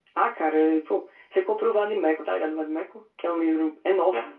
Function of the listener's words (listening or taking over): taking over